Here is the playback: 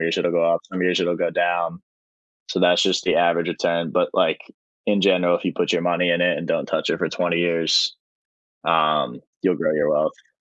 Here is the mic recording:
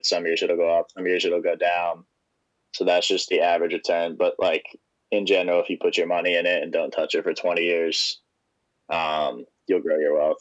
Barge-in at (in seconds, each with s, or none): none